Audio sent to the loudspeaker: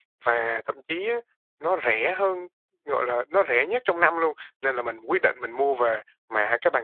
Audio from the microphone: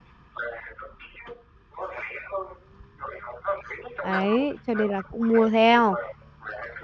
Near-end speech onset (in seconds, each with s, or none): 4.0 s